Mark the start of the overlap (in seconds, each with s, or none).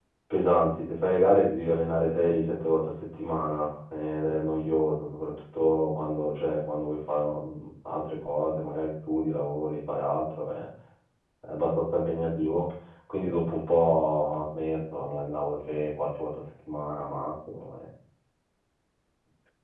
none